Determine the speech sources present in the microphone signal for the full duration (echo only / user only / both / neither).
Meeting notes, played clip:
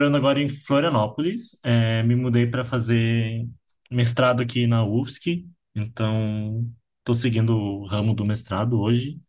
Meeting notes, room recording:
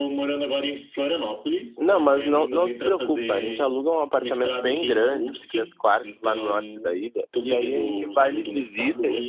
both